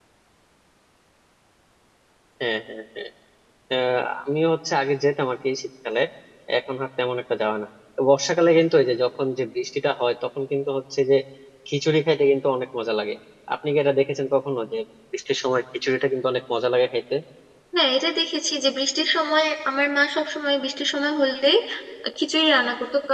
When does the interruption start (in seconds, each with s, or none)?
none